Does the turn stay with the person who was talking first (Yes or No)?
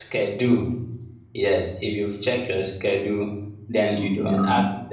Yes